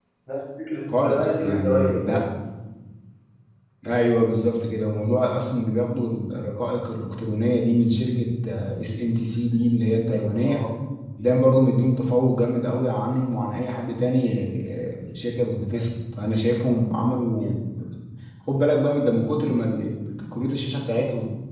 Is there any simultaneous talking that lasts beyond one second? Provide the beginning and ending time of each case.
0.9-2.2

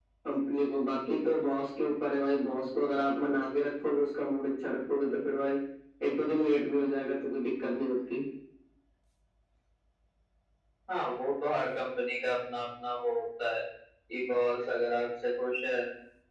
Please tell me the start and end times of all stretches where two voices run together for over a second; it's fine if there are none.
none

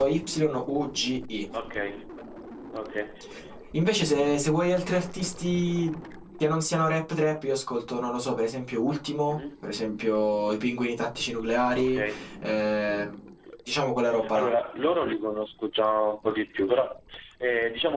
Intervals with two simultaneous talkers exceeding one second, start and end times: none

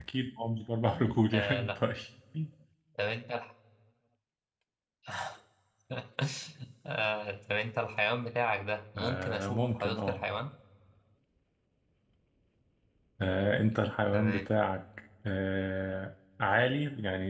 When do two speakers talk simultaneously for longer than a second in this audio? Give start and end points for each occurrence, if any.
9.0-10.2

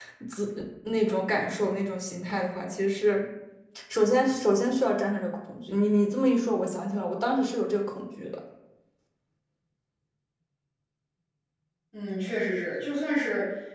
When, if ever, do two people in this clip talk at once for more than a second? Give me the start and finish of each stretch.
none

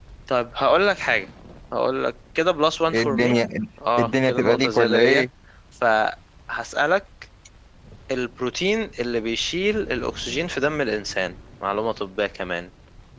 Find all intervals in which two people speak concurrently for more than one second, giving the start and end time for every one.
4.0-5.2

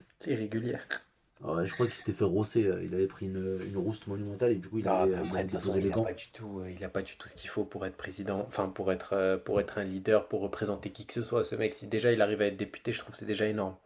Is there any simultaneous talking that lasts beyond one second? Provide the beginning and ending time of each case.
4.8-6.1

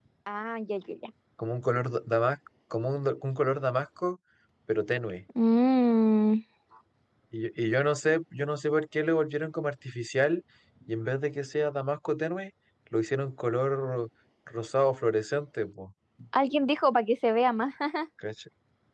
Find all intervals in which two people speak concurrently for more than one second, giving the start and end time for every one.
none

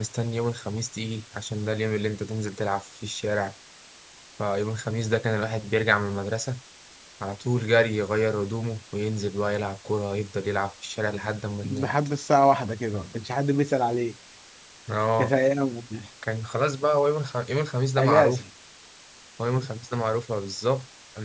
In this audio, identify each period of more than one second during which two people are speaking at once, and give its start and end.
none

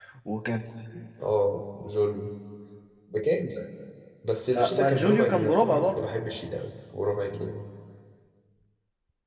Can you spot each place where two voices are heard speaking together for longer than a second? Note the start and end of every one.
4.5-6.0

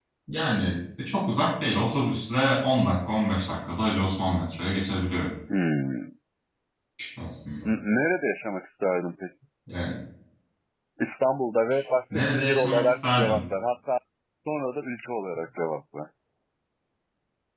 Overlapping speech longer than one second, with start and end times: 12.1-13.4

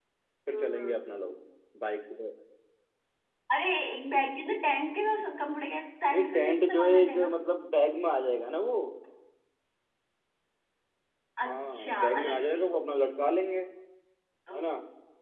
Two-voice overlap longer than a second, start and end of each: 6.1-7.3, 11.4-12.7

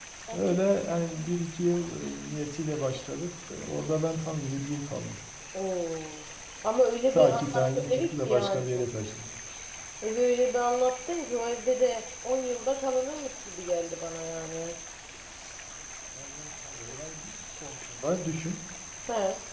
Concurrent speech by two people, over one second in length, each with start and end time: 7.1-8.7

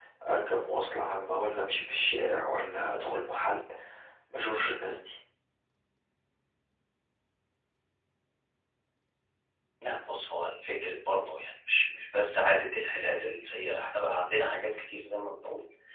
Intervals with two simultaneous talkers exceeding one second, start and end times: none

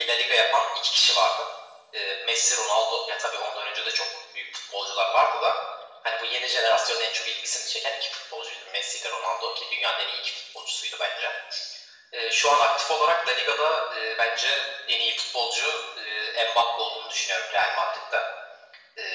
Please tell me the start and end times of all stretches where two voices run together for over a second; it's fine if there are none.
none

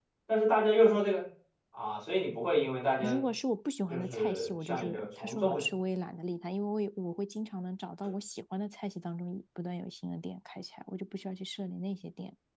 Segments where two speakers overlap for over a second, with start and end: 3.9-5.6

